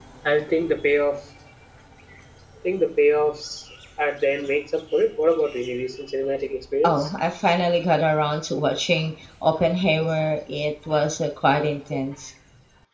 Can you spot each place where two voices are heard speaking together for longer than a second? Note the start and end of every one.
none

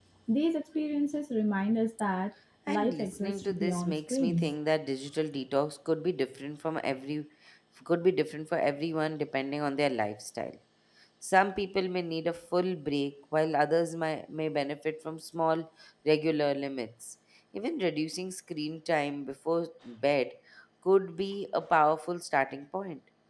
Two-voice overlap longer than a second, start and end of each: 2.7-4.5

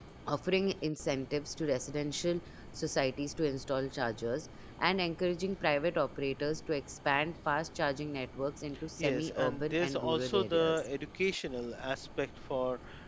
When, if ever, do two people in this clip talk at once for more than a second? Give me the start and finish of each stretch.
9.0-10.9

